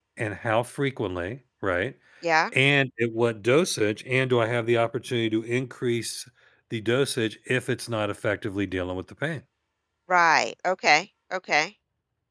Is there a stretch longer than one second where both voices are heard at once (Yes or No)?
No